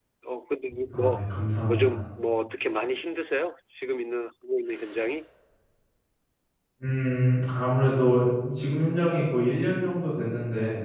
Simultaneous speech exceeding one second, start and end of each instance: none

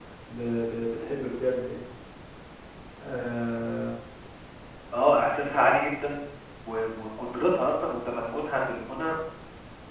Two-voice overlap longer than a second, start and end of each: none

